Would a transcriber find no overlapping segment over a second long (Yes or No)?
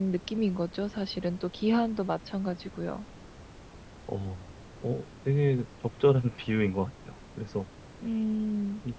Yes